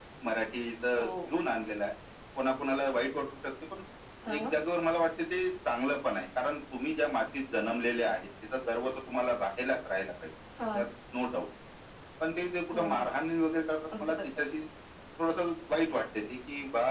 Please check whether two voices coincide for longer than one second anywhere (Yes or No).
No